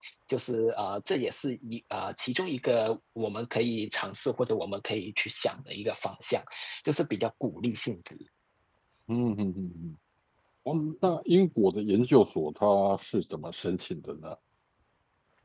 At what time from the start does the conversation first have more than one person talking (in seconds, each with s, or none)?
none